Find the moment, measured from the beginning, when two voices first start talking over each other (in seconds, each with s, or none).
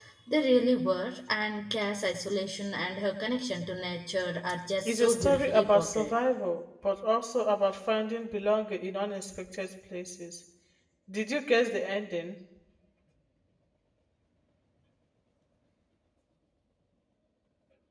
4.8 s